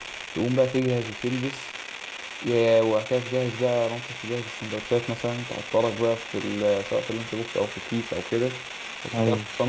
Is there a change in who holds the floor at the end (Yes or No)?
No